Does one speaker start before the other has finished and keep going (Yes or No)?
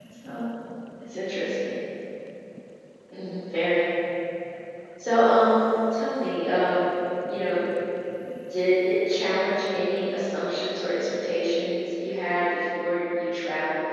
No